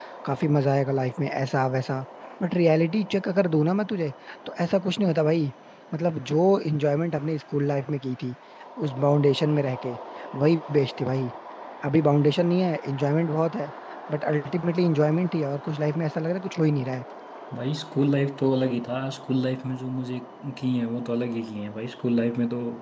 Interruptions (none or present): none